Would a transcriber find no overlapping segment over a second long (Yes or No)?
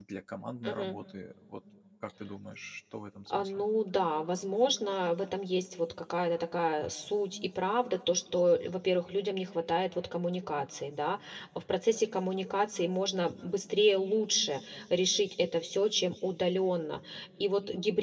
Yes